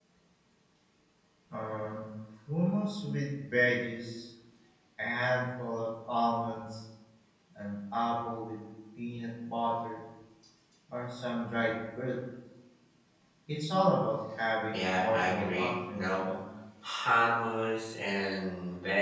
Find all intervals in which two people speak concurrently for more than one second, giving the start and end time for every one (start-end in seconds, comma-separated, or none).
14.7-16.2